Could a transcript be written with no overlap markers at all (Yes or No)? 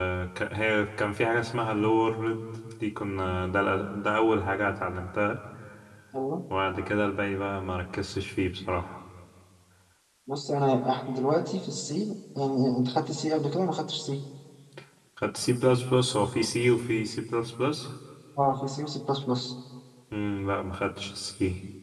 Yes